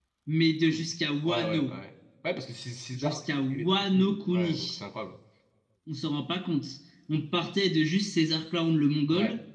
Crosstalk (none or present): present